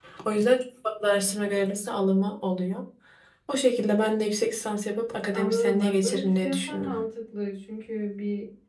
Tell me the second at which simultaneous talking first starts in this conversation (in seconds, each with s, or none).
5.3 s